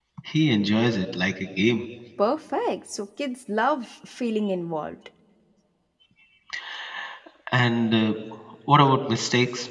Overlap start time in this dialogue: none

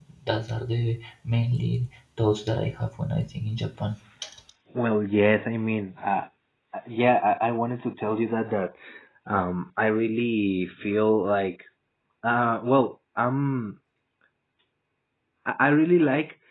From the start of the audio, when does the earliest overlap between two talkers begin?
none

